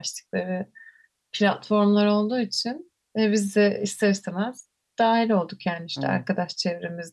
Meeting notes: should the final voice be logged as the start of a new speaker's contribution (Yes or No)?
No